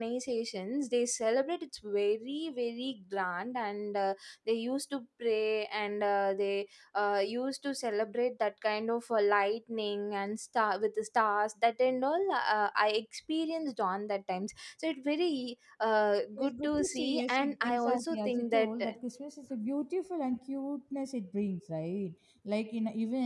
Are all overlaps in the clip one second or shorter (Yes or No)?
No